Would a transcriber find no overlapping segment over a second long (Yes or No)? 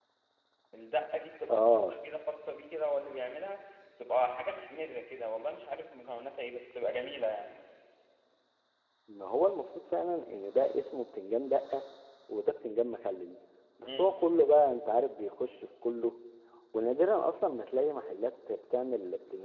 Yes